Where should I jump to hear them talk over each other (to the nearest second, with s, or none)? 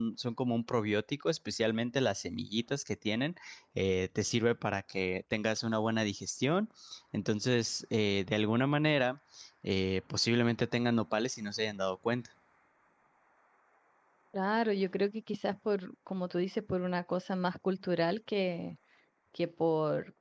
none